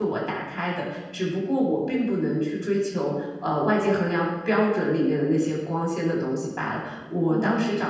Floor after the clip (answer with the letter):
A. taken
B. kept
B